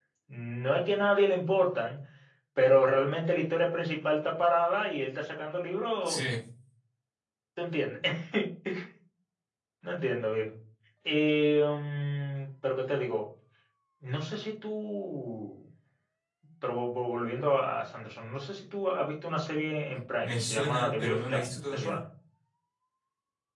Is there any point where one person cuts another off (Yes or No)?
Yes